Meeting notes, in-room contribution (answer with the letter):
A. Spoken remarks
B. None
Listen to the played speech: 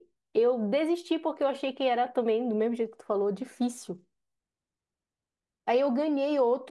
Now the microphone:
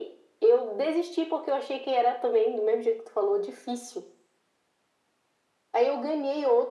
B